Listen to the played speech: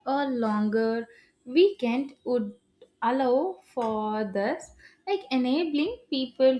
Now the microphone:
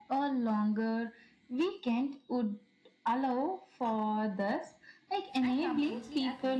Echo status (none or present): present